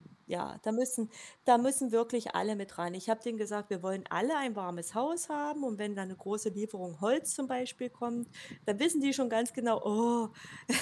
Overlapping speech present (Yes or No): No